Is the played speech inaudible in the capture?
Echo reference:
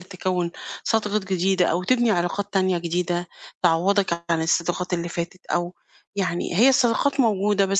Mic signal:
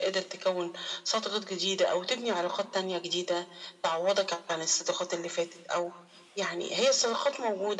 No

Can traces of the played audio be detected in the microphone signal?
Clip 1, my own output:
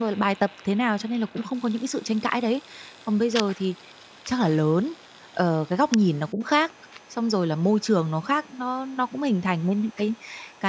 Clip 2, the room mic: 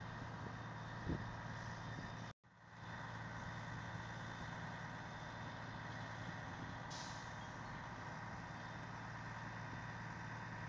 No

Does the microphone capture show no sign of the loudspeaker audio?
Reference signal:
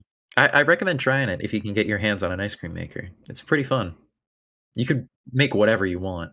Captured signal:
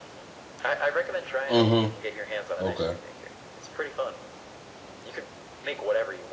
No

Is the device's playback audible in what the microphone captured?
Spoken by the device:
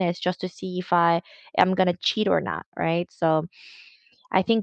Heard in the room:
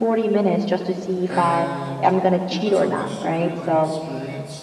Yes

